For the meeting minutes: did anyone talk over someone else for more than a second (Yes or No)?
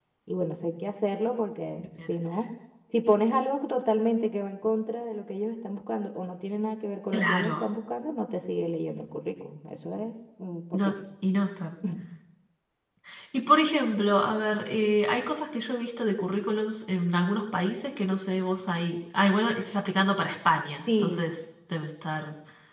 No